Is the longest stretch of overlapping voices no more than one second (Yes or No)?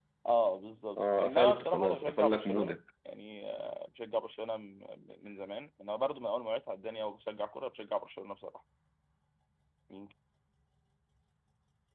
No